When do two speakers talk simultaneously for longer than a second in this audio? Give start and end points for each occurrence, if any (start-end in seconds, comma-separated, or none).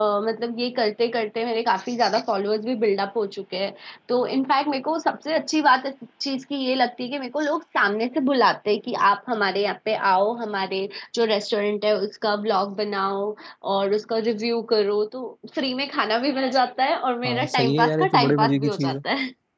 17.2-19.0